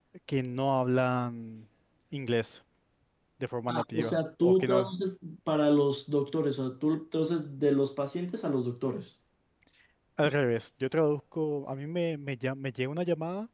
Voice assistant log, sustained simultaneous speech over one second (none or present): present